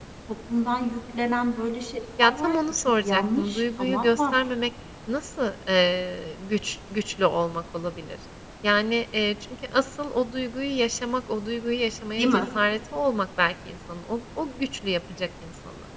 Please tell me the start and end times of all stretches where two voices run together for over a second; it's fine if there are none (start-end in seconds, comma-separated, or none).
2.2-4.4